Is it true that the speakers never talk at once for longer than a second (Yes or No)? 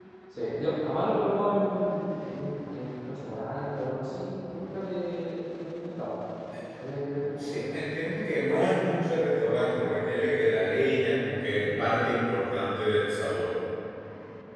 Yes